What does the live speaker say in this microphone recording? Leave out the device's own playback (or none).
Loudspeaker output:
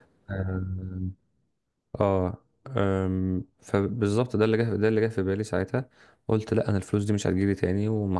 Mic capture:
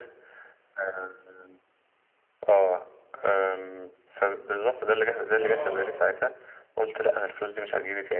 اه